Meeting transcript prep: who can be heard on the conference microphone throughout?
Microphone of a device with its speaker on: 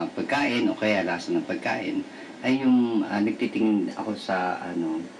echo only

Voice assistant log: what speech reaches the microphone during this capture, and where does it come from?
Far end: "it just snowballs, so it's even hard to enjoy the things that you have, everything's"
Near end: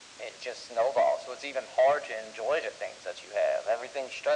echo only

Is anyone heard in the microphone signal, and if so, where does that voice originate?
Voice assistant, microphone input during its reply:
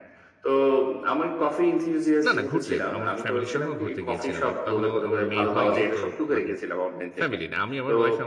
both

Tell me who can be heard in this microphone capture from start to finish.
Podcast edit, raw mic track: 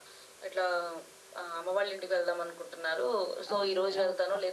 both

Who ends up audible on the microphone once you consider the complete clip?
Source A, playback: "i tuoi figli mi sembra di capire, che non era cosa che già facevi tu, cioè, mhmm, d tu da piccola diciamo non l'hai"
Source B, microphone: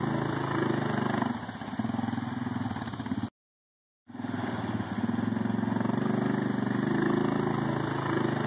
neither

